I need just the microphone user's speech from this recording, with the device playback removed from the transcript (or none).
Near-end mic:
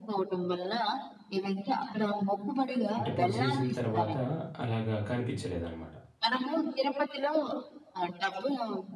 అంటే పొడిసేసిన తర్వాత అలాగా కనిపించలేదనమాట.